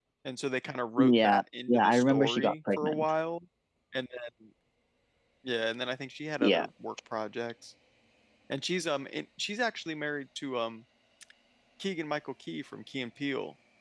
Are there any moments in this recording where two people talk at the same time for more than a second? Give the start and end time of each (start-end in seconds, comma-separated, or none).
1.0-3.1